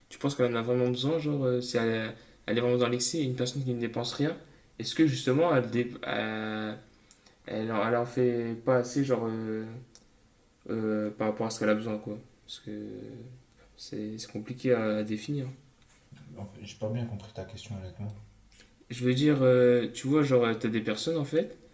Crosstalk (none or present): none